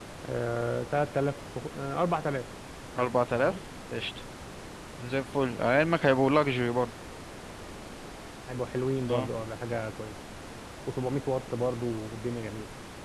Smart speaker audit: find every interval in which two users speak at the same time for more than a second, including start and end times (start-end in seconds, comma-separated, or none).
none